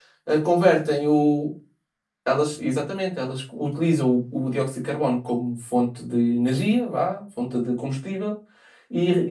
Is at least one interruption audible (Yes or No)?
No